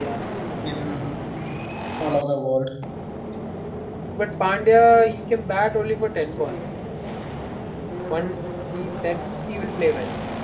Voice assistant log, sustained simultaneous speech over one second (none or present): none